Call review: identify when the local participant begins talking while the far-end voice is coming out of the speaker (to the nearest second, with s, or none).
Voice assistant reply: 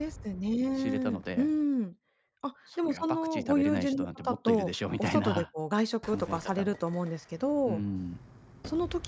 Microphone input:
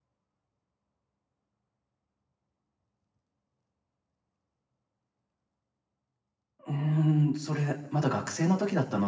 7 s